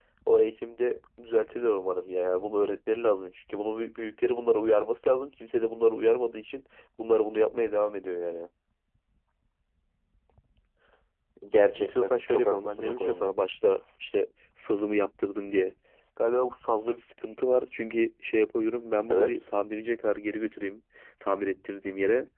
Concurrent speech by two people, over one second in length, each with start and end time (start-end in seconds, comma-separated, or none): 11.8-13.3